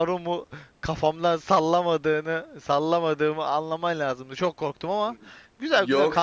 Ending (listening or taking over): taking over